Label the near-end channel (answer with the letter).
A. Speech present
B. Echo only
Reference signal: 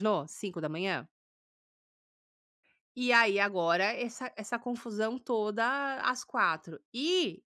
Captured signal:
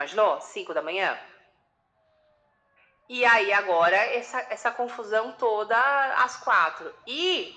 B